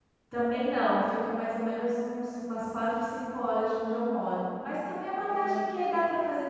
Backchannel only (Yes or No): Yes